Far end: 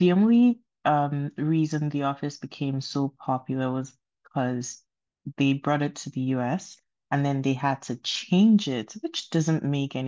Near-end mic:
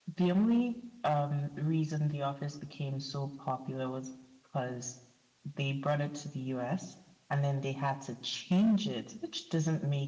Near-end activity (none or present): none